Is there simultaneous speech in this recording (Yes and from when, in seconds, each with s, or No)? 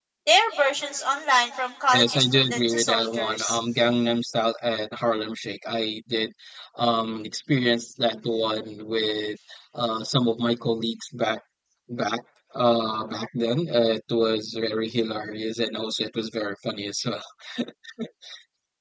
Yes, from 1.9 s